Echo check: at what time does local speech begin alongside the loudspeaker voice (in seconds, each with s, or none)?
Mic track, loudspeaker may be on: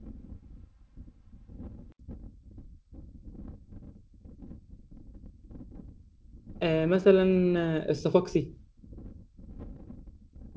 6.6 s